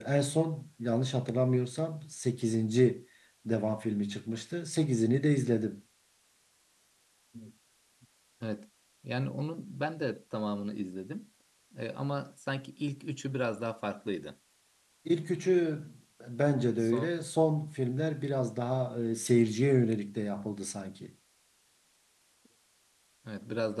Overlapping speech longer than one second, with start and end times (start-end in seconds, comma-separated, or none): none